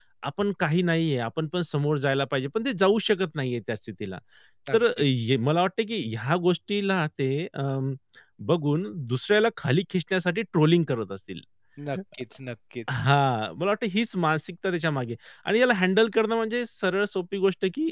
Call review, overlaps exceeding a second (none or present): none